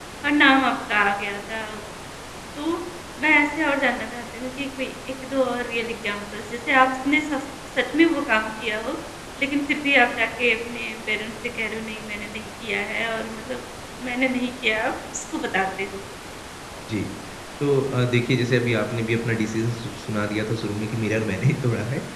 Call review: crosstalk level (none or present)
none